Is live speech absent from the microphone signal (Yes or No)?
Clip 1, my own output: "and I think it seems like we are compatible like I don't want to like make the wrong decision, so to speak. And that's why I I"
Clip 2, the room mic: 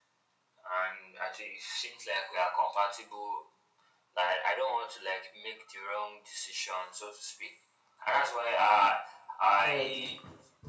No